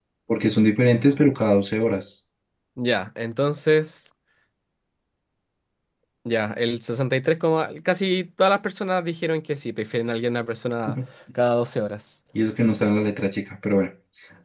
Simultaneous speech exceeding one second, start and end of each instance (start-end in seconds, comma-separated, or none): none